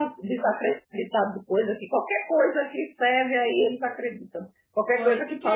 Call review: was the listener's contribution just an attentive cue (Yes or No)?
No